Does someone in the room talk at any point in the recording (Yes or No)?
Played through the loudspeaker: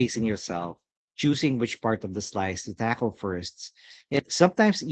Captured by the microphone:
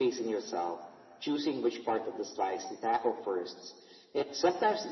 No